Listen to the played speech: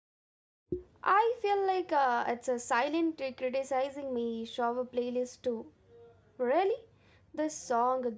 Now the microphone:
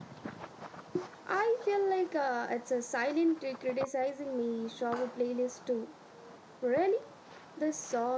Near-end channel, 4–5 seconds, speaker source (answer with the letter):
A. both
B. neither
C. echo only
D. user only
C